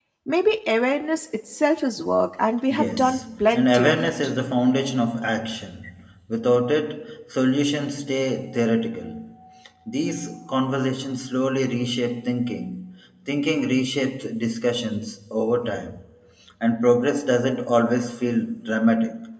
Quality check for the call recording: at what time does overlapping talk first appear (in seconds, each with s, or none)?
2.7 s